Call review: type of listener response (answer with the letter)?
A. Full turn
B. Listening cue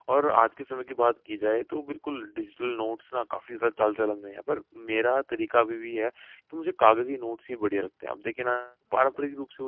B